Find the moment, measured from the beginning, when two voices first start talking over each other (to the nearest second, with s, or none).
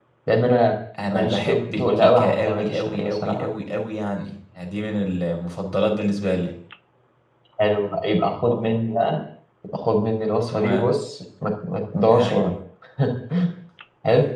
1 s